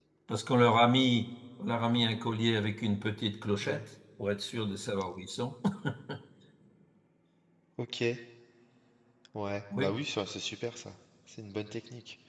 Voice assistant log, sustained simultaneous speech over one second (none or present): none